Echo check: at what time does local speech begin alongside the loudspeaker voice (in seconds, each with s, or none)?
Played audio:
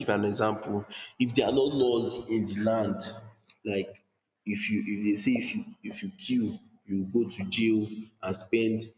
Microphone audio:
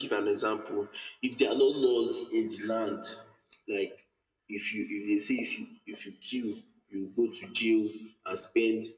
none